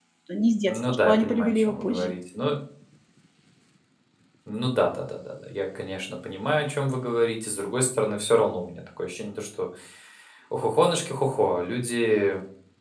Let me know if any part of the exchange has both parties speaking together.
Yes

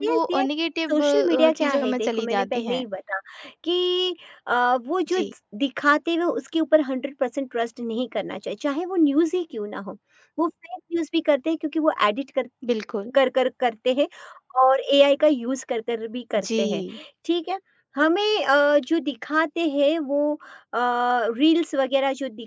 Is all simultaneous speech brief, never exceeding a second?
No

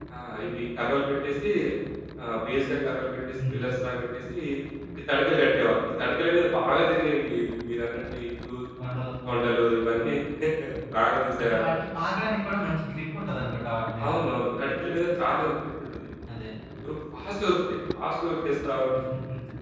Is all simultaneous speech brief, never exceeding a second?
Yes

